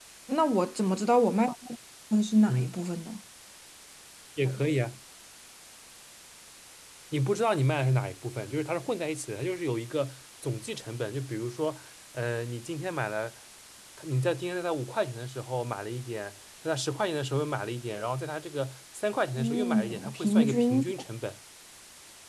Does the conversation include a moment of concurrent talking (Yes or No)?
Yes